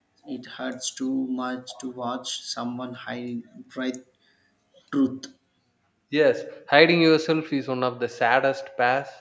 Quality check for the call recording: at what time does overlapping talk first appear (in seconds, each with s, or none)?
none